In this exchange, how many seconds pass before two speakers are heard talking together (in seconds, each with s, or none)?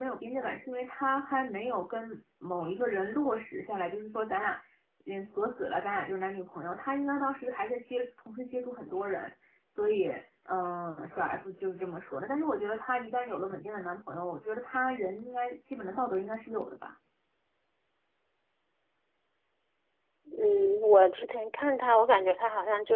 none